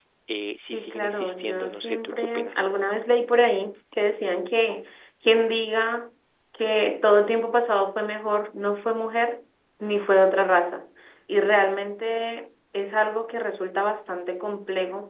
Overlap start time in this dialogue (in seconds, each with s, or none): 0.7 s